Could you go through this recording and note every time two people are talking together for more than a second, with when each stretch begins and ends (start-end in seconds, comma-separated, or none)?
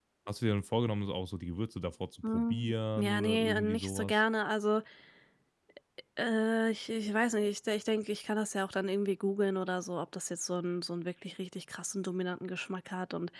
2.3-4.1